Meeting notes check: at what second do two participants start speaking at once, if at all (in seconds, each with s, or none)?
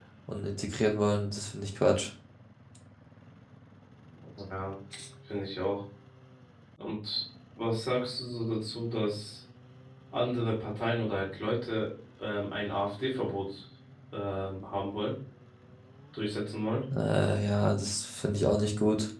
none